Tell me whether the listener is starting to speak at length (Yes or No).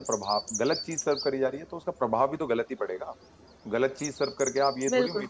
No